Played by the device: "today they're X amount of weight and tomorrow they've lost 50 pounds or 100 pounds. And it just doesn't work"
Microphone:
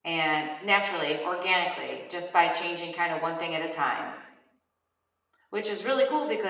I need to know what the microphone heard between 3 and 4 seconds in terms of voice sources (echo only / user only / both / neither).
user only